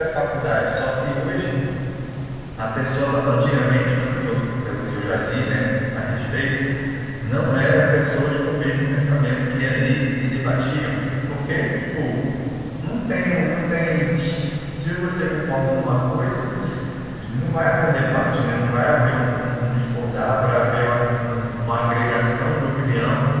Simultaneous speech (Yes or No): No